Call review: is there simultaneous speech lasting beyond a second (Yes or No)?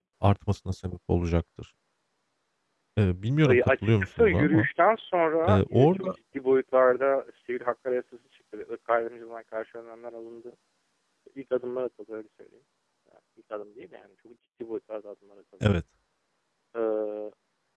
Yes